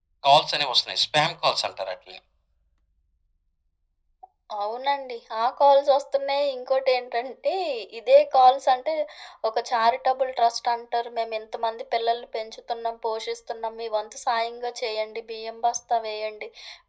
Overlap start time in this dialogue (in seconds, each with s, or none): none